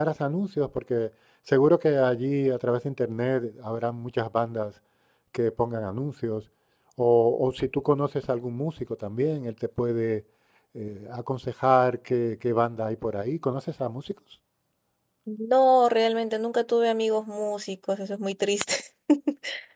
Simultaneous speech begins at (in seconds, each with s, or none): none